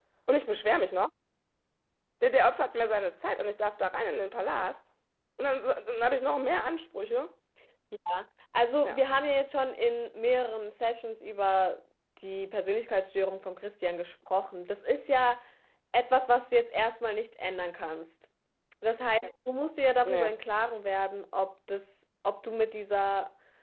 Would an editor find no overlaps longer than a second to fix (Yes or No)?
Yes